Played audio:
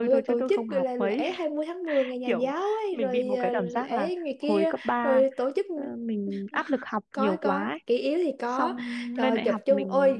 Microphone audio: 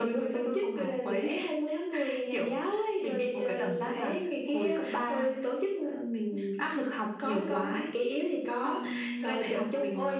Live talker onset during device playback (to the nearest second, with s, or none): none